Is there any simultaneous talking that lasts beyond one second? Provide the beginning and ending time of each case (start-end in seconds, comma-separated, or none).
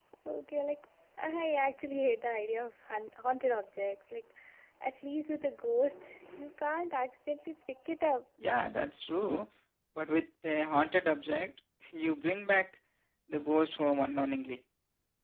none